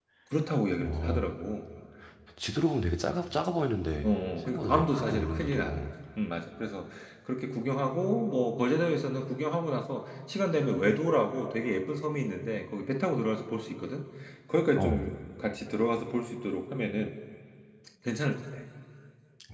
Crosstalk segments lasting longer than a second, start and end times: 4.0-5.8

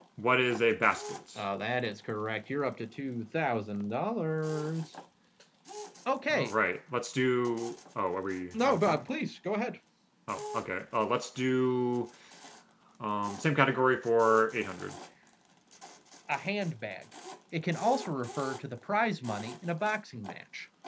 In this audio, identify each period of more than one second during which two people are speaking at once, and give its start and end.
none

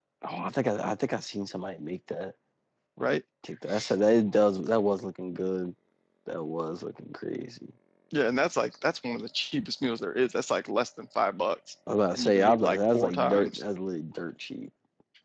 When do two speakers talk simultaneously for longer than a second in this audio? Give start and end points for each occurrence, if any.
12.1-13.6

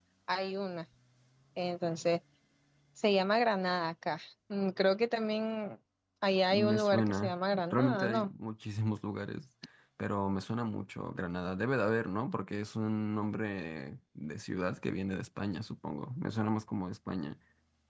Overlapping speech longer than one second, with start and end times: 6.5-8.3

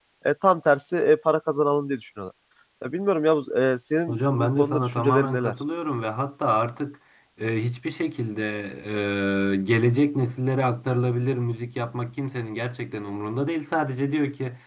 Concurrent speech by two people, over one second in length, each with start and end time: 4.1-5.5

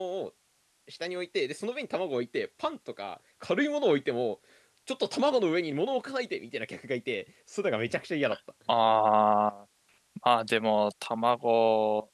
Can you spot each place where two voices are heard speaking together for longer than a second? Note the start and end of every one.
none

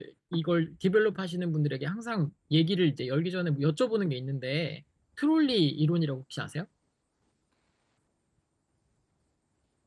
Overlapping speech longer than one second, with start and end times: none

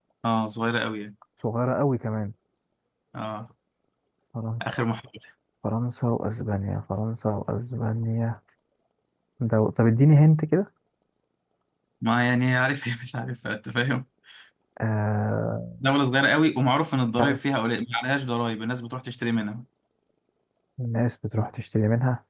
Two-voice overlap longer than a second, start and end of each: none

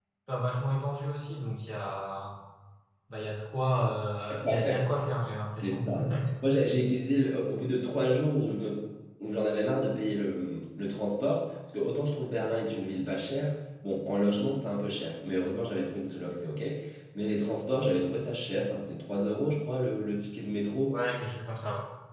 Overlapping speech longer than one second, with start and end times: none

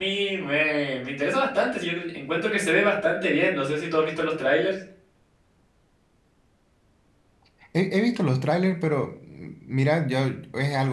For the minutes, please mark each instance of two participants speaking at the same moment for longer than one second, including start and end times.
none

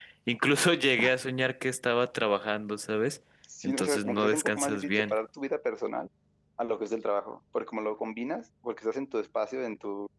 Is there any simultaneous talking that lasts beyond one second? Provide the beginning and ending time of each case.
3.6-5.2

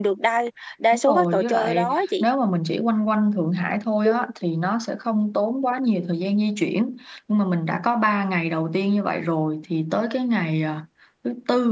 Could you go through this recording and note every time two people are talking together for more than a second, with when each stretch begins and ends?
1.1-2.2

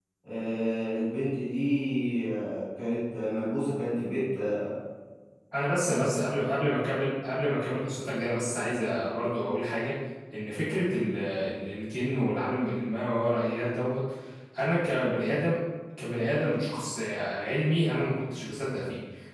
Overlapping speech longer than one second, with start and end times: none

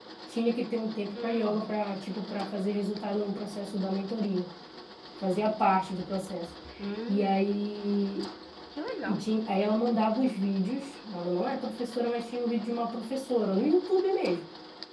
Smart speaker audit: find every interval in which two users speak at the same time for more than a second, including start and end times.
none

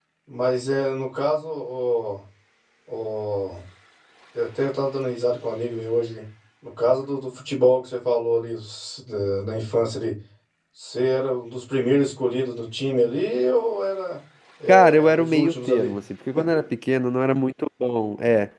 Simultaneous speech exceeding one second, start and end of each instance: 14.7-15.9

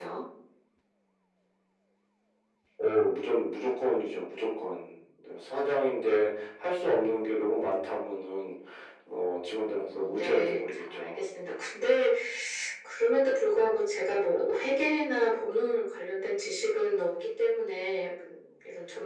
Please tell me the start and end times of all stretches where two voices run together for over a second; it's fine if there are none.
9.6-11.2

